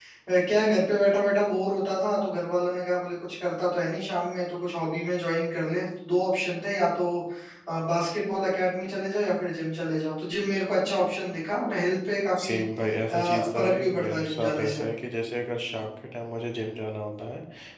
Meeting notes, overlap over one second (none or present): present